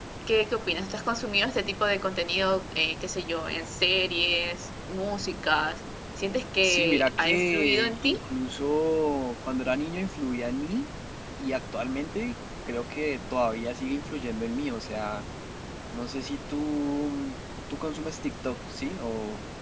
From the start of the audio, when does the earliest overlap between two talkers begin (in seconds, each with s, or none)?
6.6 s